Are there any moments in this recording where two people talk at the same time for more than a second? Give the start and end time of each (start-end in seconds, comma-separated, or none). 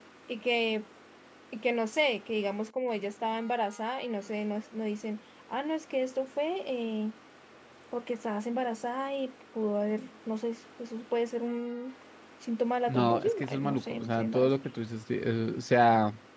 12.9-14.5